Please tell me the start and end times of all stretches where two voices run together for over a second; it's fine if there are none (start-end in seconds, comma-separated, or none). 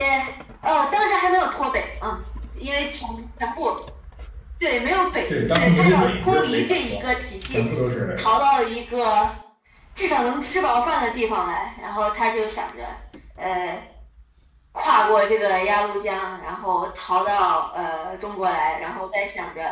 5.3-7.0